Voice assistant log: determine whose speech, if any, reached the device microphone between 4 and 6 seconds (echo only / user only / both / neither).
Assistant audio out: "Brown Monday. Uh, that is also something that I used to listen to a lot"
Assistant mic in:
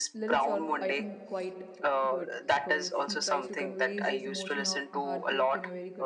both